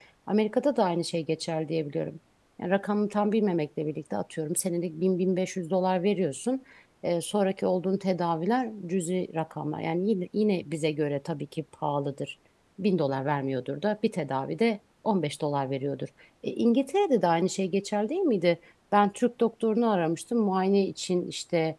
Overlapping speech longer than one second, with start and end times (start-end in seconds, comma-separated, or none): none